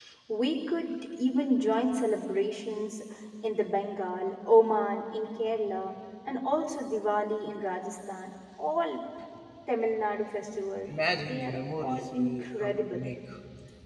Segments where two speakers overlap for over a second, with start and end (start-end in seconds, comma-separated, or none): 10.9-13.0